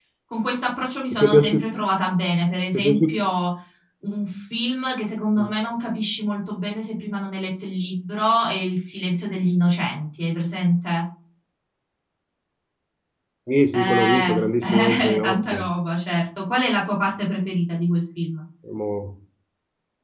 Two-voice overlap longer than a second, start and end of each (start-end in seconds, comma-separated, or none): 13.7-15.7